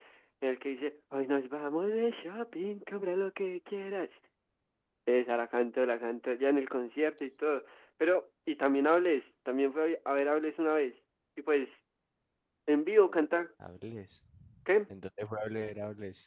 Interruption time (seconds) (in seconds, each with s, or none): none